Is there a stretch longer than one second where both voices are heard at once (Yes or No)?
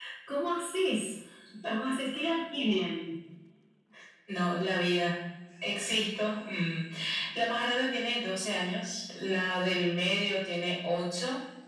No